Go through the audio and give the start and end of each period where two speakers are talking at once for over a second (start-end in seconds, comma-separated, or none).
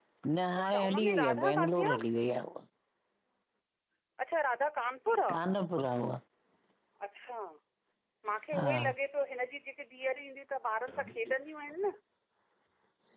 0.6-2.0